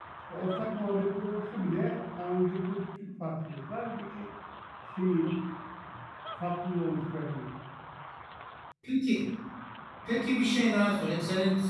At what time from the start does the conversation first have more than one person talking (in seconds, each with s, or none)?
none